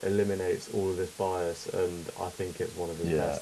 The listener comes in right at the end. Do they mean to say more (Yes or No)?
Yes